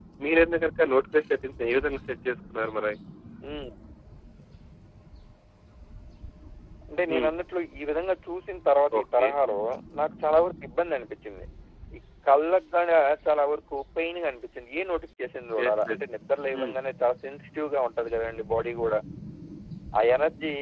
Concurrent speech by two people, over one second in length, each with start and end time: none

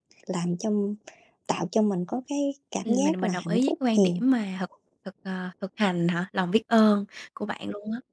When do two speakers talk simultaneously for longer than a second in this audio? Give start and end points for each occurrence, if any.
2.9-4.2

